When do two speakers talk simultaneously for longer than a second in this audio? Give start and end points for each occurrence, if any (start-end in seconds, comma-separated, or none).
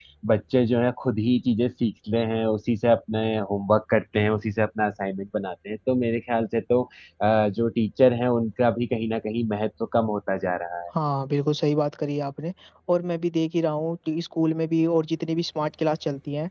none